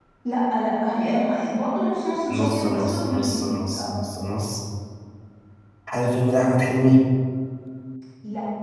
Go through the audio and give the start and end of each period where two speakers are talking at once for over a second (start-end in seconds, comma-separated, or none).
2.3-4.1